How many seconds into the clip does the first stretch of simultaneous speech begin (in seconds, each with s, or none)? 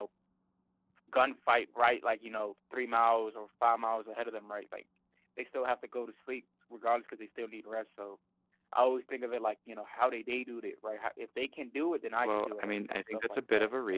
12.2 s